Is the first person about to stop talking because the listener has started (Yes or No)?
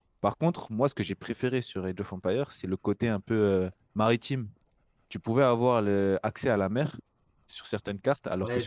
Yes